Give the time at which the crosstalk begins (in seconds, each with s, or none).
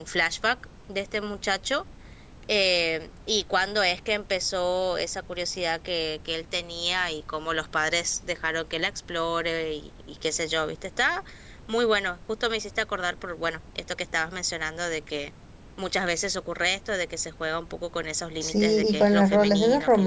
18.4 s